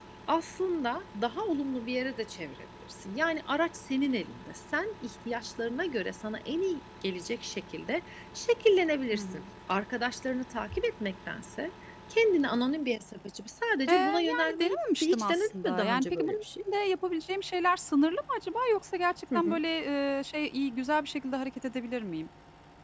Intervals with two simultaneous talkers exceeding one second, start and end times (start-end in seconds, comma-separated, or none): 13.9-16.4